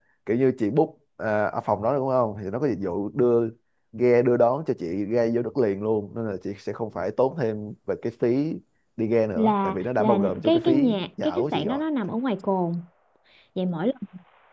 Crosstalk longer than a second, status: present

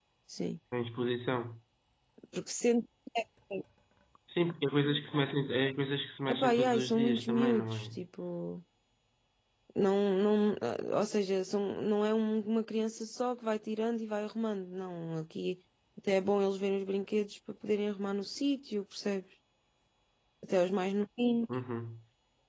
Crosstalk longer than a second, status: present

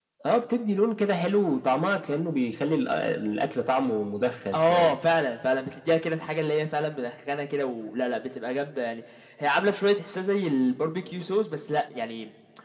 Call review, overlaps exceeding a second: none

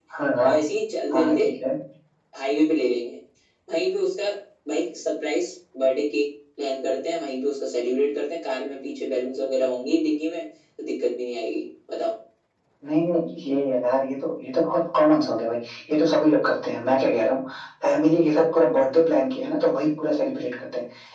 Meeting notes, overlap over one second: none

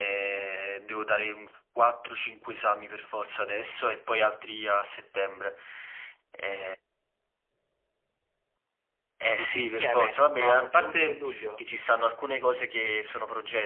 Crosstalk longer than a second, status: present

